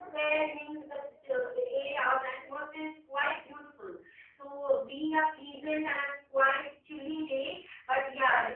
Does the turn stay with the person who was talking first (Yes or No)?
No